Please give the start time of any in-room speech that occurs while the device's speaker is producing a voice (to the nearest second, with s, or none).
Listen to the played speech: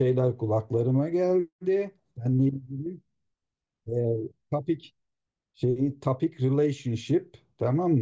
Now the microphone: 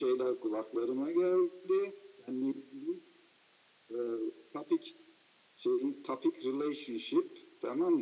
none